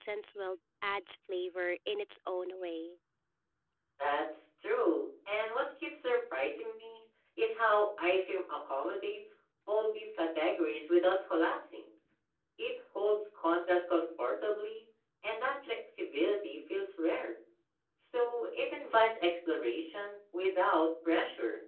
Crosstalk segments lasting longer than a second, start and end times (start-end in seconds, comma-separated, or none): none